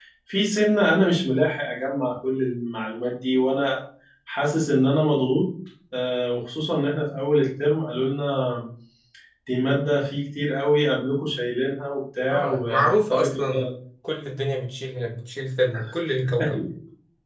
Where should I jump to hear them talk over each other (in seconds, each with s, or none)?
12.3 s